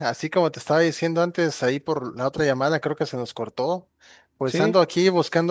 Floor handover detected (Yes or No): No